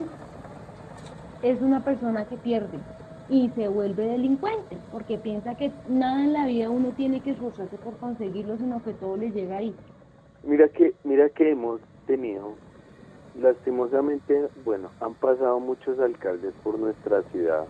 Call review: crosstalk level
none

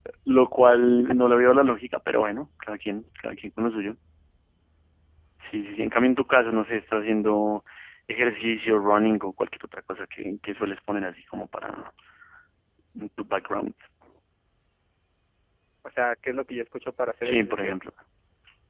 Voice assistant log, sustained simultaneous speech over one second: none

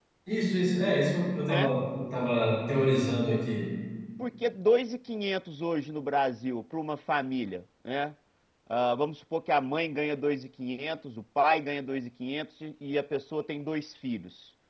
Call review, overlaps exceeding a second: none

